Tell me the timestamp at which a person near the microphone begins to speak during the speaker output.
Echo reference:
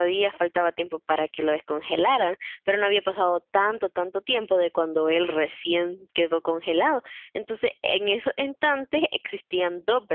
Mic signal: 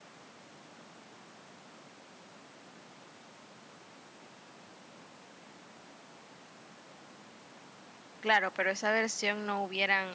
8.2 s

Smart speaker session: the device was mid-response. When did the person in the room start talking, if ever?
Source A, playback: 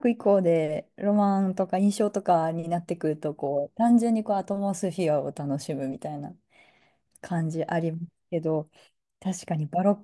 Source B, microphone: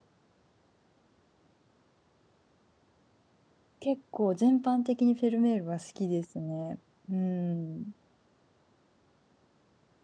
3.8 s

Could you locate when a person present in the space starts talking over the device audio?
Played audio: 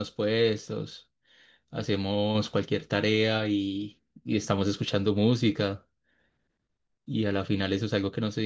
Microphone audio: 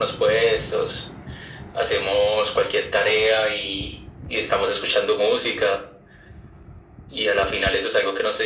none

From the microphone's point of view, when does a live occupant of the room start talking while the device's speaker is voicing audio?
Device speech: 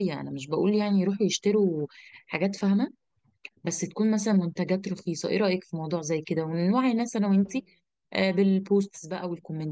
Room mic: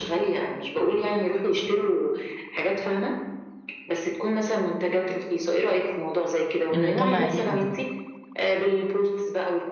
6.7 s

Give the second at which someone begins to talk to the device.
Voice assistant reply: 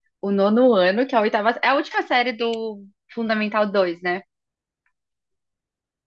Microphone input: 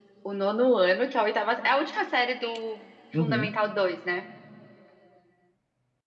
3.1 s

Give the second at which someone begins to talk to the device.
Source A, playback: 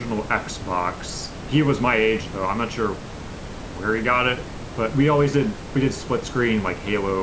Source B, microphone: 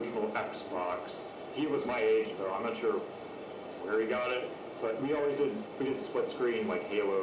none

